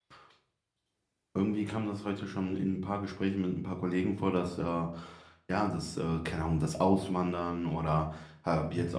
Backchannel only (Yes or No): Yes